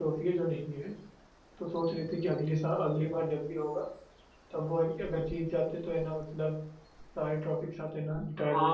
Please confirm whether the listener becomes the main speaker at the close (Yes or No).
Yes